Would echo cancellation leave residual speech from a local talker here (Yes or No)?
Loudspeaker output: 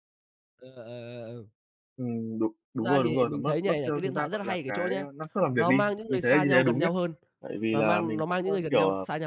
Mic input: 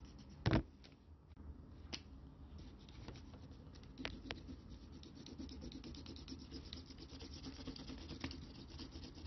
No